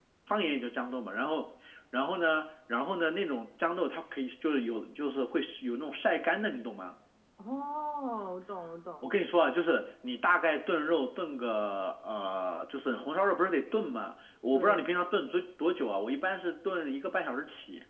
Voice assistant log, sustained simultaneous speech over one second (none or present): none